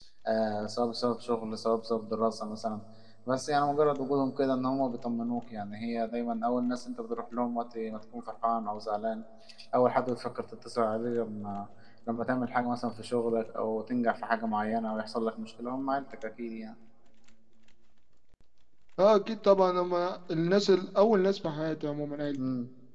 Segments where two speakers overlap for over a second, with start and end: none

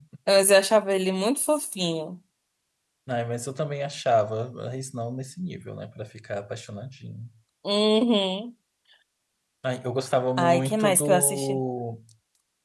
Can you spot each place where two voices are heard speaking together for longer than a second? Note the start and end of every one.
10.4-11.6

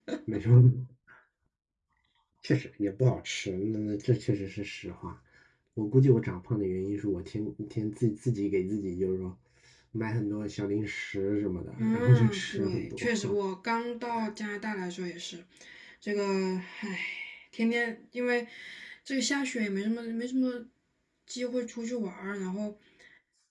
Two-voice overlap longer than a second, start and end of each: 11.8-13.1

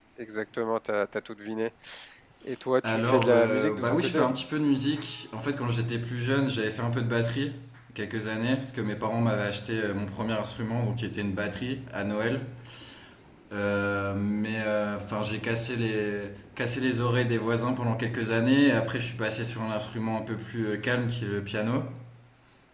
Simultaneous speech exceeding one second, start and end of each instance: 2.9-4.2

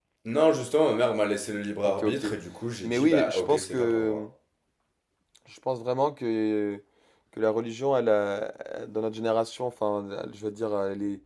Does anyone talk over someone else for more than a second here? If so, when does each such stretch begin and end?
2.8-4.2

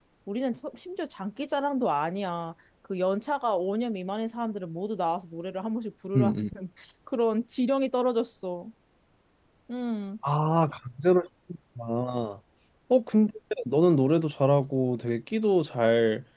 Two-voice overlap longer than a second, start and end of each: none

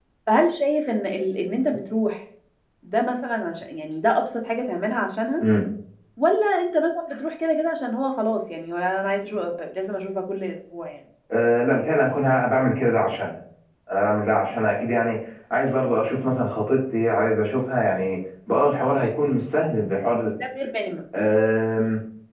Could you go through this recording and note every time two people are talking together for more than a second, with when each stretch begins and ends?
none

